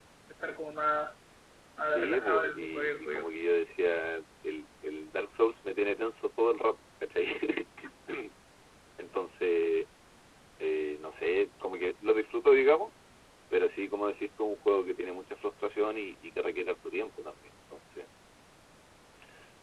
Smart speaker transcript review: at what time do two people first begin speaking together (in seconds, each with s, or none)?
1.8 s